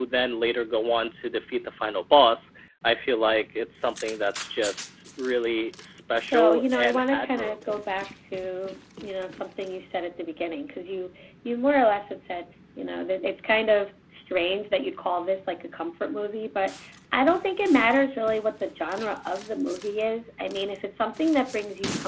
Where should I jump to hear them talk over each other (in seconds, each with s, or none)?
6.3 s